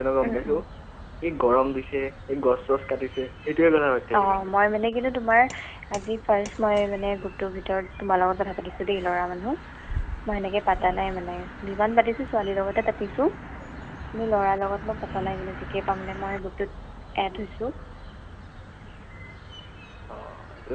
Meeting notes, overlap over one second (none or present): none